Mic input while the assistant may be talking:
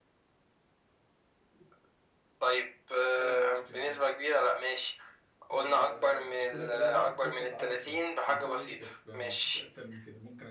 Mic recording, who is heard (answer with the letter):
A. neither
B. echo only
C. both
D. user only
C